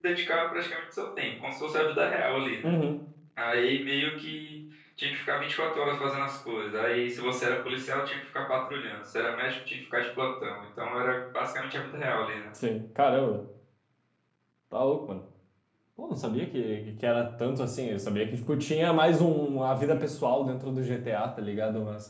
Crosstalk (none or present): none